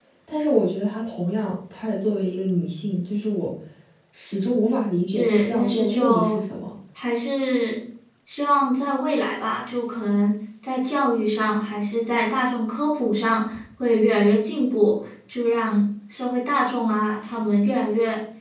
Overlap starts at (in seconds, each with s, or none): 5.1 s